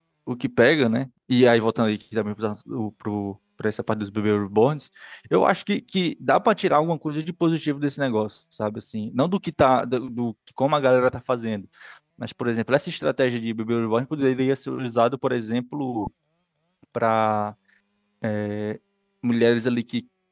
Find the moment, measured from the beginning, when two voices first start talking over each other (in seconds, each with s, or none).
none